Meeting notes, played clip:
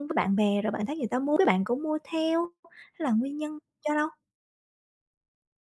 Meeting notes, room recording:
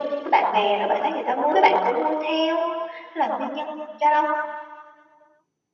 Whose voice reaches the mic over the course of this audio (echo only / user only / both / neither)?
echo only